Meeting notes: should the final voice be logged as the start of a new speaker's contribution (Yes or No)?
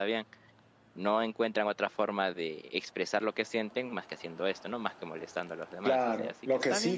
Yes